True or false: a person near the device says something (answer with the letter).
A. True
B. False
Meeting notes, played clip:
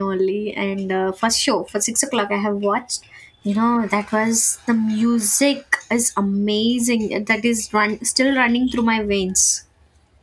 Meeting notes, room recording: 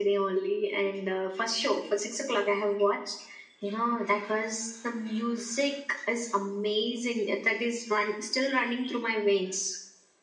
B